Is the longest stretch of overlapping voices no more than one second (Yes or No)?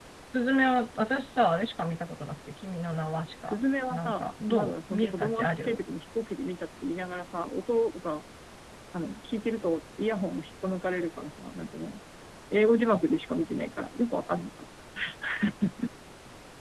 No